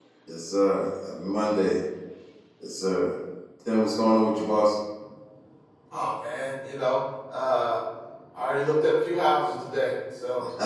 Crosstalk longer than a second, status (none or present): none